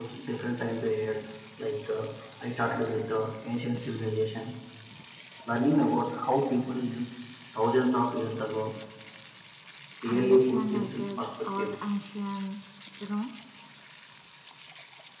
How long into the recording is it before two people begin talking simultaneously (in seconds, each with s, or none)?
10.1 s